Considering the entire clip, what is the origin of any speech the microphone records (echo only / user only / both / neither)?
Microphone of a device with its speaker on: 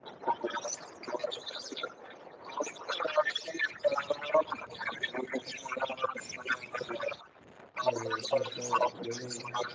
both